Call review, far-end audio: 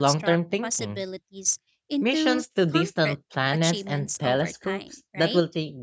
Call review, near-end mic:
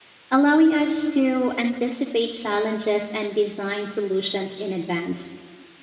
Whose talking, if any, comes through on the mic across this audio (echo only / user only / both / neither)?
user only